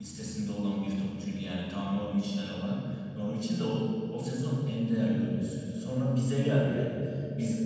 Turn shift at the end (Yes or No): No